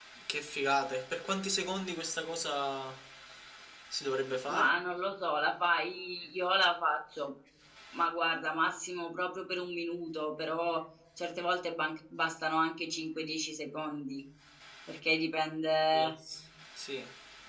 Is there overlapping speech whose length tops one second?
No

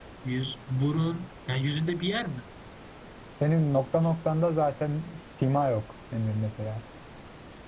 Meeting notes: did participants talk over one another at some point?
No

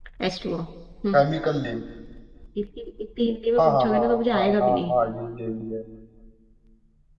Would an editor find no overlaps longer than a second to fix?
No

